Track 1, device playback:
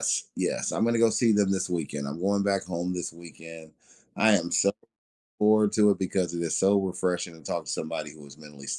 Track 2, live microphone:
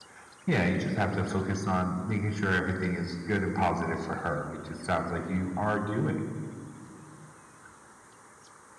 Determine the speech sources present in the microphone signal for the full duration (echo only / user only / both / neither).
user only